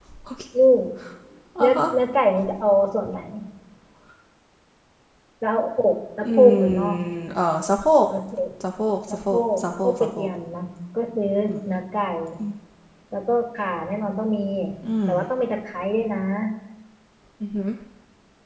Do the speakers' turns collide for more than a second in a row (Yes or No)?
Yes